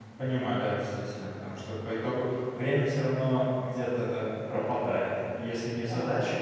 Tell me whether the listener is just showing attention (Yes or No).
Yes